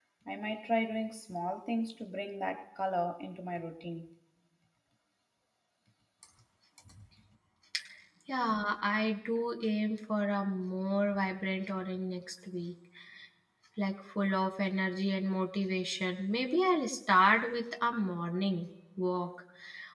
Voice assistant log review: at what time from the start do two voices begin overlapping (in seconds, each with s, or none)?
none